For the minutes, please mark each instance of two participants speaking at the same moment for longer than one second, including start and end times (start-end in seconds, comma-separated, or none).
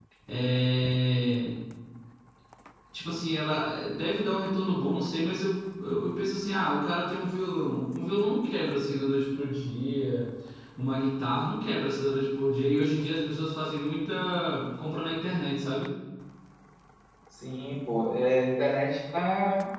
none